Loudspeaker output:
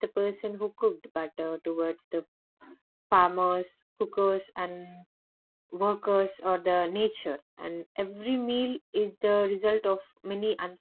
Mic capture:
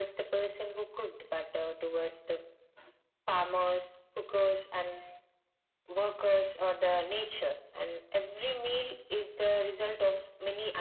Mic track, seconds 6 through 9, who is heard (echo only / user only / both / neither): echo only